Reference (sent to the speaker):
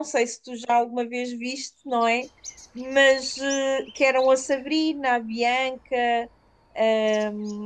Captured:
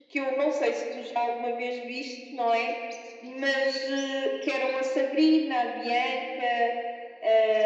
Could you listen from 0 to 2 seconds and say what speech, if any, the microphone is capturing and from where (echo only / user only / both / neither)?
echo only